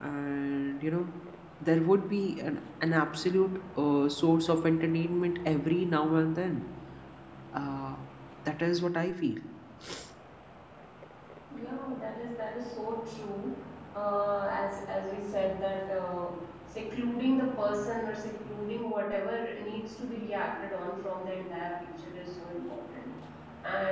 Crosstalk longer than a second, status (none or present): none